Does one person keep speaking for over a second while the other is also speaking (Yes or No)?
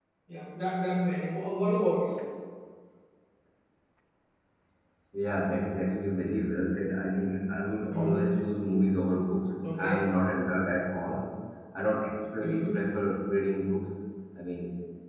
No